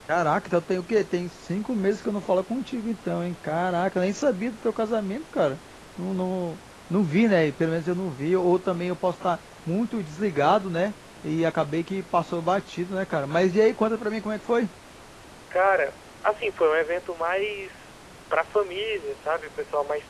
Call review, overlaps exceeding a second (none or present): none